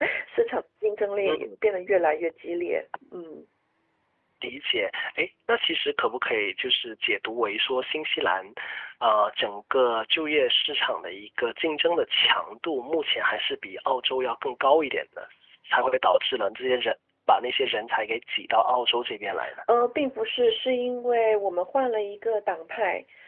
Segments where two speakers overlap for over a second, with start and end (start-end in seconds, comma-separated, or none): none